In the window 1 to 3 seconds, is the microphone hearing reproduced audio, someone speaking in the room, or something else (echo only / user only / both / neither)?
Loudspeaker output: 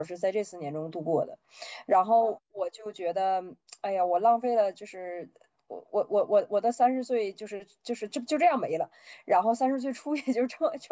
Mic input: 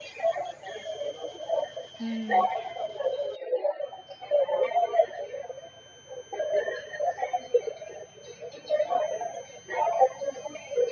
both